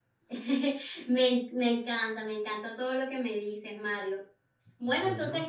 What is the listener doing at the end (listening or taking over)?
listening